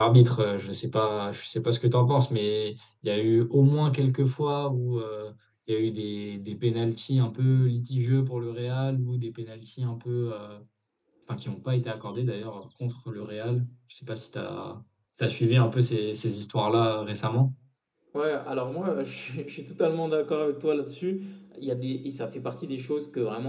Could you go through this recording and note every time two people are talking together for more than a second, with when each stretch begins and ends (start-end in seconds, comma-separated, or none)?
none